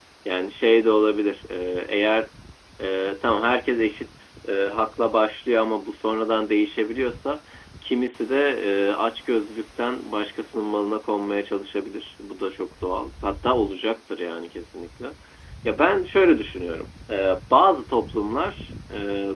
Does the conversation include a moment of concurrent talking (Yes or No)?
No